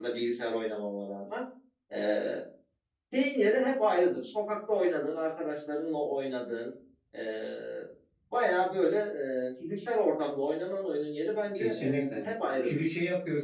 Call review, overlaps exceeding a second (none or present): present